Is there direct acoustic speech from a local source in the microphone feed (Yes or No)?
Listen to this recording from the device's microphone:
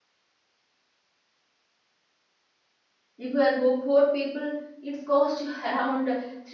Yes